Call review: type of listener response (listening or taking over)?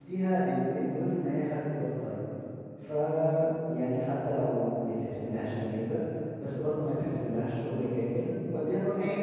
listening